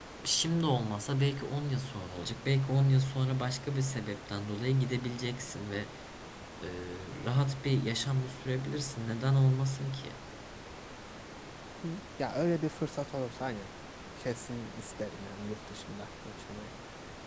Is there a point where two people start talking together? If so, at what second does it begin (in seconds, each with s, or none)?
none